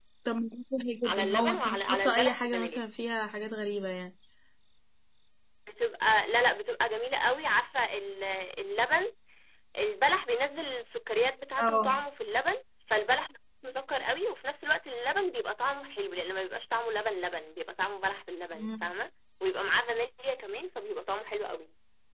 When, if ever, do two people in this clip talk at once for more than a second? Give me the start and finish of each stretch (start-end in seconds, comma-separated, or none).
1.0-2.8